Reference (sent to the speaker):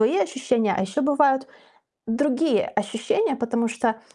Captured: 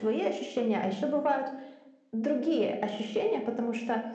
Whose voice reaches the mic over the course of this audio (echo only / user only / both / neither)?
echo only